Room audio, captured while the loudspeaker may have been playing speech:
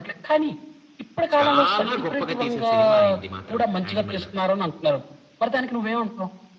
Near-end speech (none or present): present